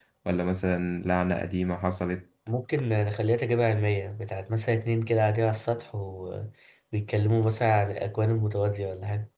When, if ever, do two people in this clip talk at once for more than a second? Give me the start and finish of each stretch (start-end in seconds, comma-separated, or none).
none